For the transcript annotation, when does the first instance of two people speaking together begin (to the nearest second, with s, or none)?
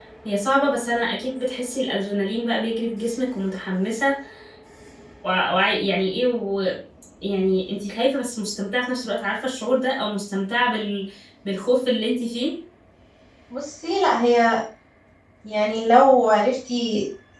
none